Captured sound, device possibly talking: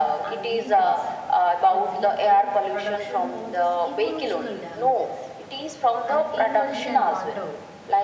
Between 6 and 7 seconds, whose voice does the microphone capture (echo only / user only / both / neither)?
both